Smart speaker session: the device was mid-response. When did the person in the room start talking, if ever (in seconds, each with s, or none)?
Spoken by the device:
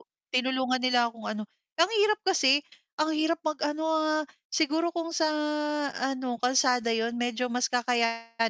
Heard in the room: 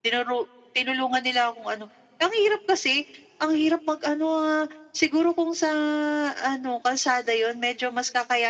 none